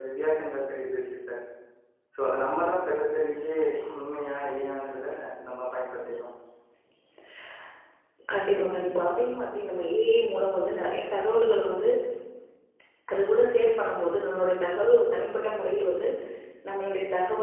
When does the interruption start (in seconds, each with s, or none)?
none